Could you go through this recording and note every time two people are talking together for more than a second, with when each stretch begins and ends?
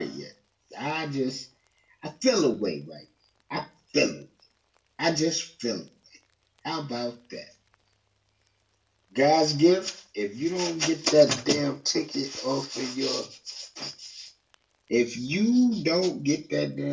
none

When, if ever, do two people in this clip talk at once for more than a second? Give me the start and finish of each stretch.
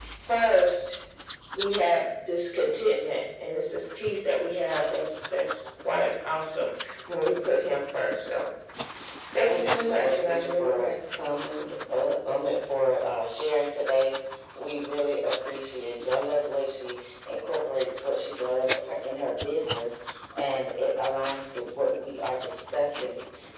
9.4-10.9

